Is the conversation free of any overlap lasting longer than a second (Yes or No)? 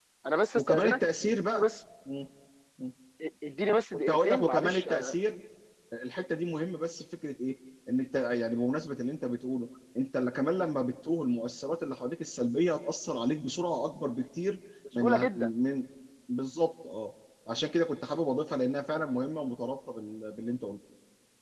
No